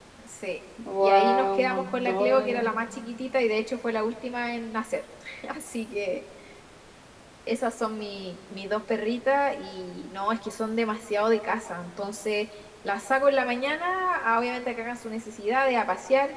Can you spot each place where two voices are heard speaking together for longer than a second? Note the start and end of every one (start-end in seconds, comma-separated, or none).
1.0-2.7